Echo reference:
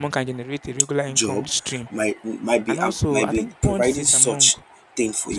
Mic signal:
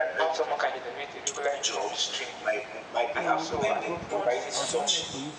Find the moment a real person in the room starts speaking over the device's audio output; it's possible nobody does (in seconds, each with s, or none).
3.1 s